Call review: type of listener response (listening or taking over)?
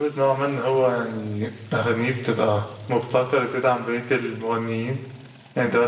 listening